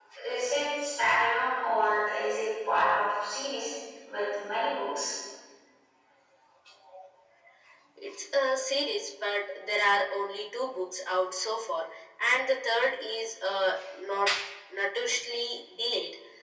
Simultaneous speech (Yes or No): No